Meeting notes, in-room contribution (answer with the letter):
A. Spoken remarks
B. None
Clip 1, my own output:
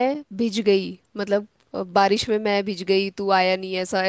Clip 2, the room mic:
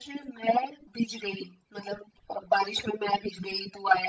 B